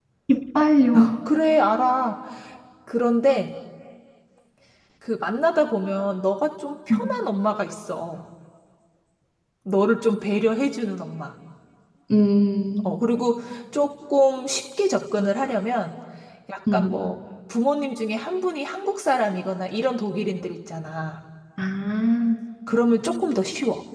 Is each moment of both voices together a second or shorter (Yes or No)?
Yes